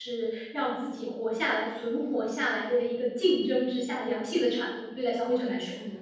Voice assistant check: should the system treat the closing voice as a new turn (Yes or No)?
Yes